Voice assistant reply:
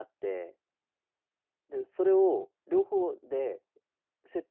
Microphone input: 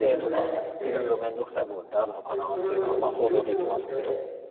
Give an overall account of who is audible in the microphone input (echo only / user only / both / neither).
both